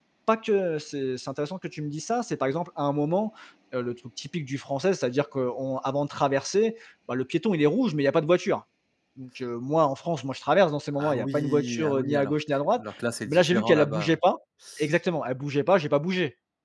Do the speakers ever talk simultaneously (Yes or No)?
Yes